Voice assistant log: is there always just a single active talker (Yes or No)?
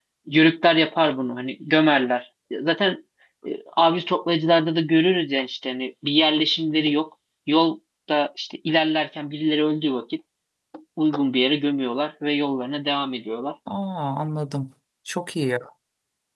Yes